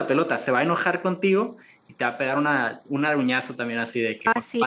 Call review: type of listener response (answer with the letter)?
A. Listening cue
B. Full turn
B